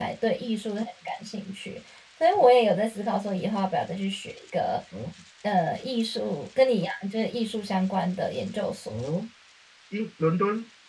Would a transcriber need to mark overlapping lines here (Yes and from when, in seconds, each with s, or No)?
No